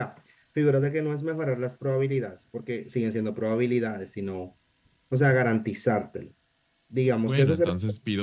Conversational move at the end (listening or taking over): taking over